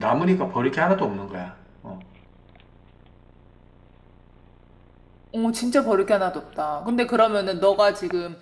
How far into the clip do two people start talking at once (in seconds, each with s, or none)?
none